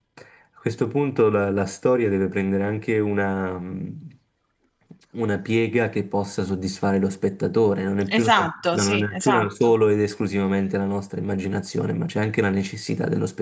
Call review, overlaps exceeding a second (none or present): present